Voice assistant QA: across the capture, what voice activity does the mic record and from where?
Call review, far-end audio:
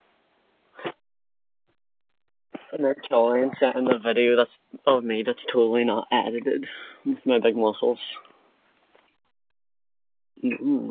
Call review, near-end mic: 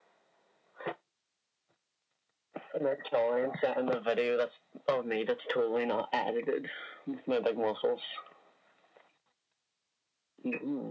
echo only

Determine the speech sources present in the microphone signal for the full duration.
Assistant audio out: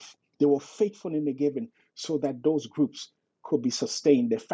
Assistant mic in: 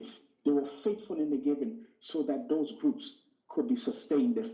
echo only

